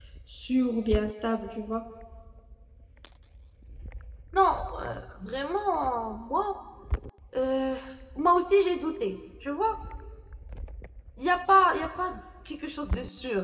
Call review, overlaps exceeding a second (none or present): none